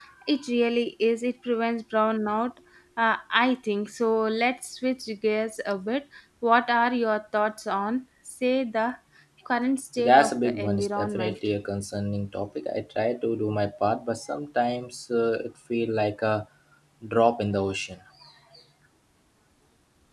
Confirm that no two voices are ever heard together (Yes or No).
No